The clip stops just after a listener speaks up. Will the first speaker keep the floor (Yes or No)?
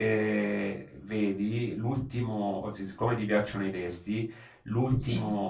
Yes